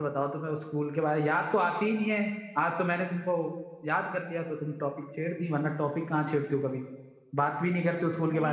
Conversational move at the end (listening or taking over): taking over